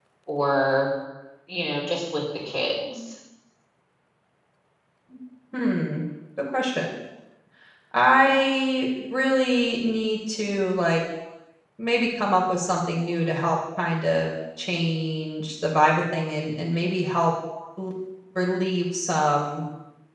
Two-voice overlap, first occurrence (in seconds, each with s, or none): none